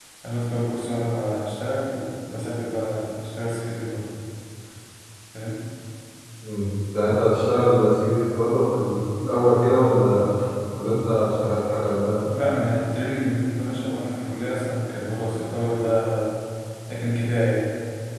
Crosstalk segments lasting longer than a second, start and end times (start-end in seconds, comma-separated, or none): none